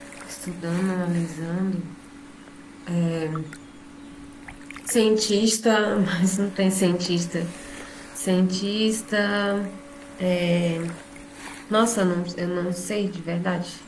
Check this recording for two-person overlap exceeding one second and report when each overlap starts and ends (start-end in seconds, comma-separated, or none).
none